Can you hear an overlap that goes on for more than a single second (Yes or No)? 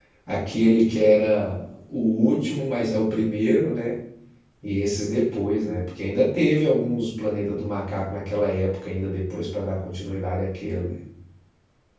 No